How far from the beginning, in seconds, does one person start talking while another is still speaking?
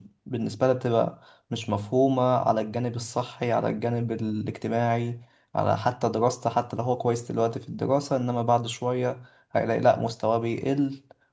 none

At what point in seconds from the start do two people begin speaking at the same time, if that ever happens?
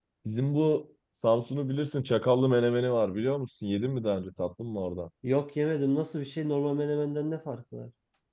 none

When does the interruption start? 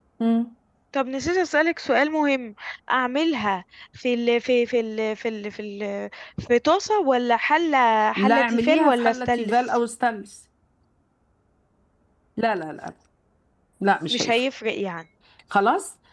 8.2 s

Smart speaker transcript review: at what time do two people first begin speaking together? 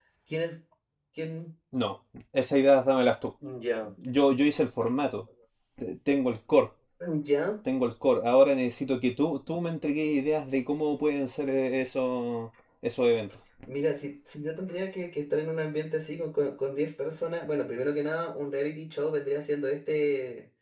none

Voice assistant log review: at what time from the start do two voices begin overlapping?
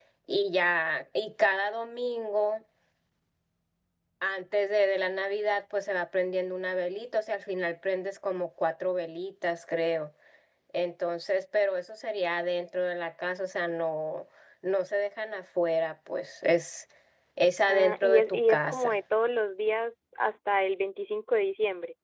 17.6 s

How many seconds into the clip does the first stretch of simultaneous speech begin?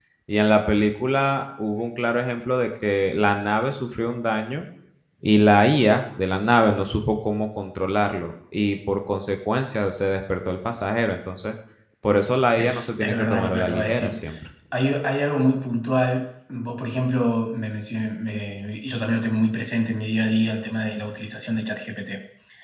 12.6 s

